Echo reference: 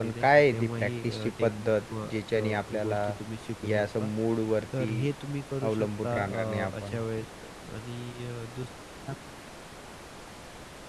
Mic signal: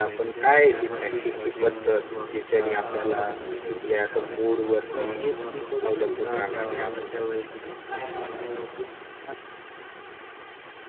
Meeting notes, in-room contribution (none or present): present